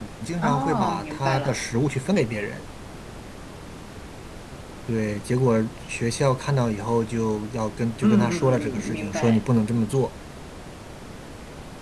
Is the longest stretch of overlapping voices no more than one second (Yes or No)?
No